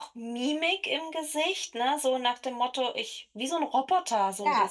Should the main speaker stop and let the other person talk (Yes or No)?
Yes